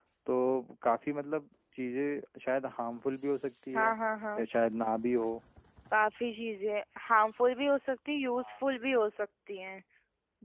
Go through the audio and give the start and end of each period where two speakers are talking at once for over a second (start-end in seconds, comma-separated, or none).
none